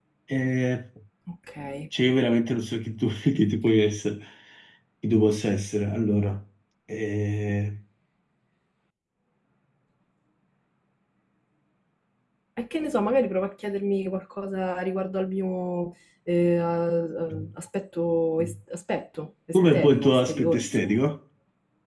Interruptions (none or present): present